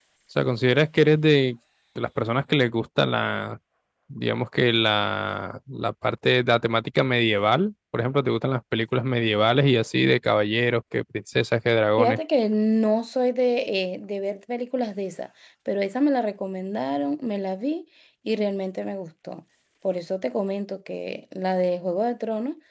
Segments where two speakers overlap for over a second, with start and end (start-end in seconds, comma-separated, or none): none